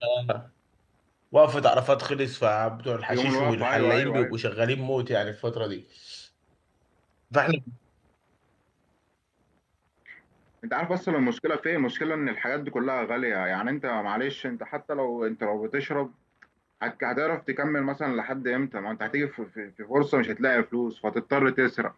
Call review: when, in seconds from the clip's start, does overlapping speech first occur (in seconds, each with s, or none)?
3.1 s